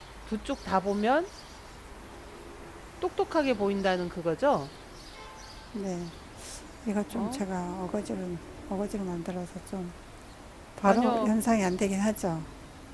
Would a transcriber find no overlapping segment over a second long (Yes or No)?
Yes